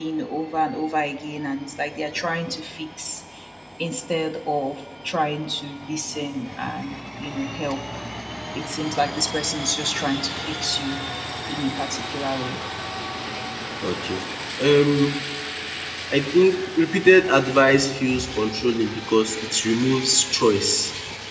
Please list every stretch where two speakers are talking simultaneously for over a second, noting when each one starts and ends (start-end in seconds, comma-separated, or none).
none